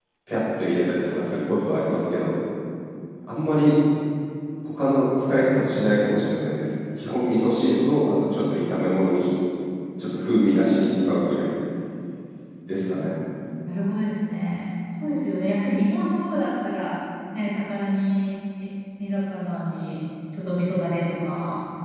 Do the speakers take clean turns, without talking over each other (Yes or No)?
Yes